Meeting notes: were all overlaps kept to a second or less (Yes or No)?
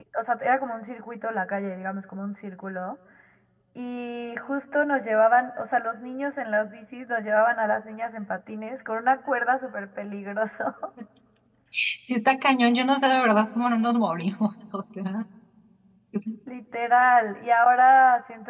Yes